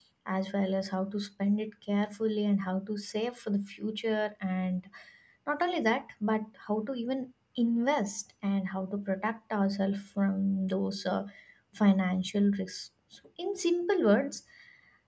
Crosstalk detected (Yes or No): No